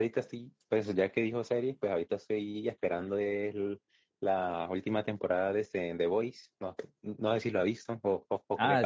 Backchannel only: No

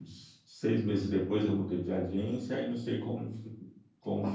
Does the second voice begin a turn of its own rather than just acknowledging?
No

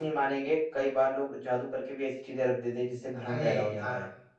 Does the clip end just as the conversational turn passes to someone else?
Yes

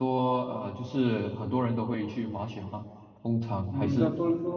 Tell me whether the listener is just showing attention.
No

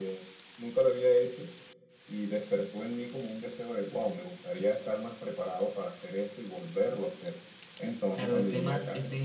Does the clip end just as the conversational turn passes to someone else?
Yes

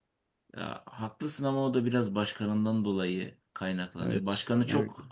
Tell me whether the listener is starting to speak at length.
No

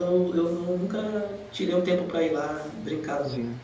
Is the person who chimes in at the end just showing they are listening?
No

